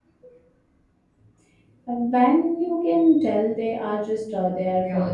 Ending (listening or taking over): taking over